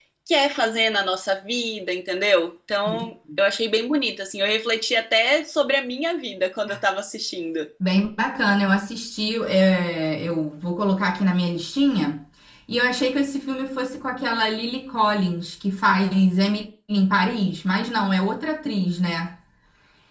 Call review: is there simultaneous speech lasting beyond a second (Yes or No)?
No